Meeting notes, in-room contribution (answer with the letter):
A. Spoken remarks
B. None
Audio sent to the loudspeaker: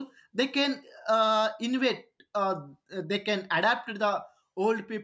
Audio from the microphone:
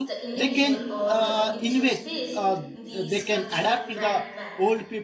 A